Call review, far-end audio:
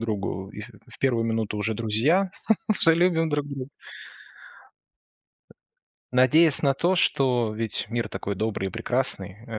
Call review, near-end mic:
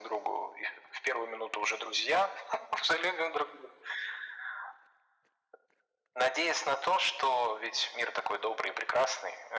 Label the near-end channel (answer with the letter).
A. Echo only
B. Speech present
A